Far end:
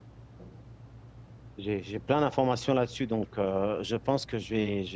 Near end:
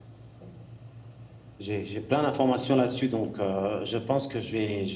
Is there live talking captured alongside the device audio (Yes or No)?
No